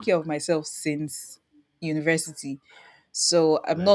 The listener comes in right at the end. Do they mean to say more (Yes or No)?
No